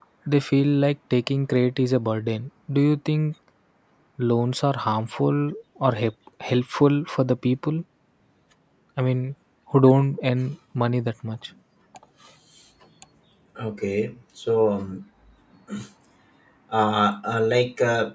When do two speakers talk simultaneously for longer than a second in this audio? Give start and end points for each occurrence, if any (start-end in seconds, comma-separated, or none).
none